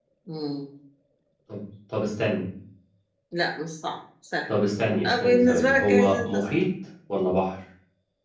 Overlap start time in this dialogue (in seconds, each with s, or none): 5.0 s